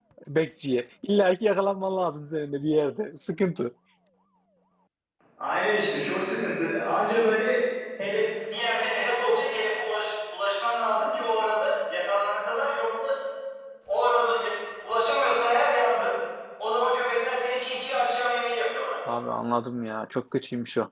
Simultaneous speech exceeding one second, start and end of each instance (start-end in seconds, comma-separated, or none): none